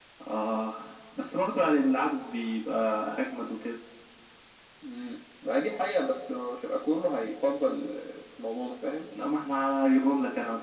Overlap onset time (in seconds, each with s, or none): none